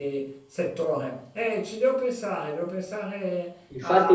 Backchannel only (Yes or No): No